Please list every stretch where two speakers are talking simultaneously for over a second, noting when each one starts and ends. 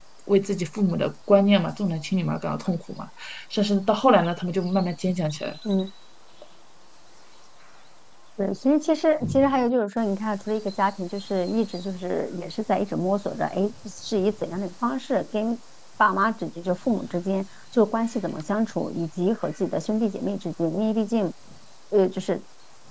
none

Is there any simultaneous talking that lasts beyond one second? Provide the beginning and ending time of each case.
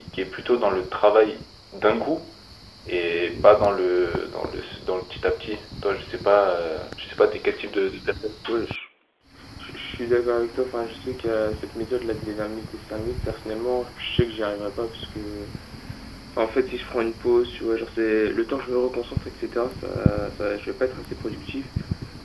none

